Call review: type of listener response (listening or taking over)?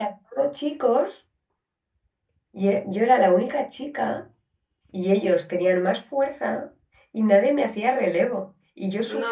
listening